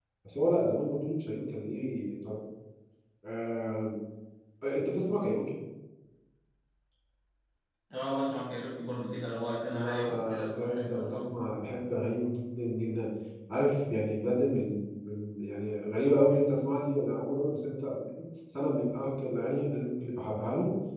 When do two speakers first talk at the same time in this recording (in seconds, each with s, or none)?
9.7 s